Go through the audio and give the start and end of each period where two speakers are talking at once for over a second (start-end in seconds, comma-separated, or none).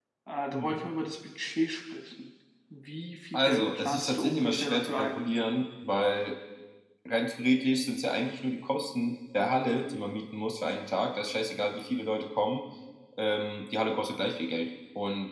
3.3-5.2